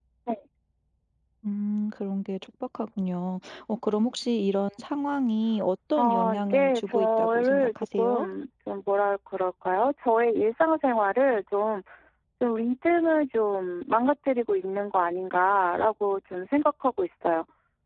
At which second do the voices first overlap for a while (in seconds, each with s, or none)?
6.0 s